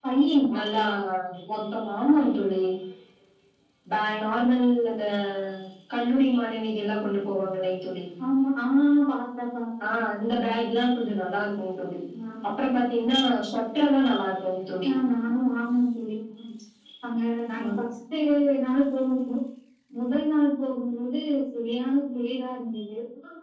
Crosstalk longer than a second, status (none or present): none